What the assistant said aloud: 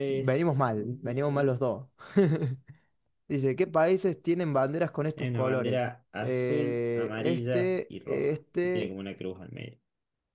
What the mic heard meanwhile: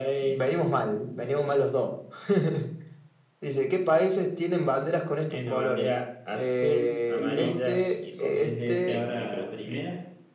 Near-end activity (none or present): present